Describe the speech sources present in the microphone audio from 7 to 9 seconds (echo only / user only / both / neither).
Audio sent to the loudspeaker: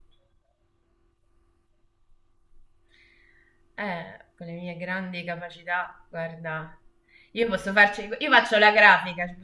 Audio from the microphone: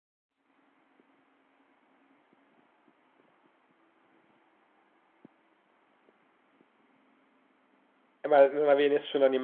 user only